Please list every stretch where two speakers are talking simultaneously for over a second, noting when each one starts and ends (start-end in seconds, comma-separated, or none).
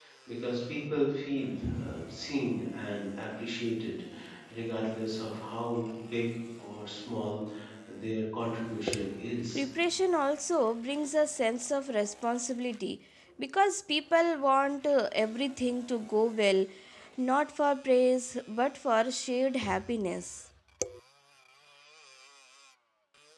none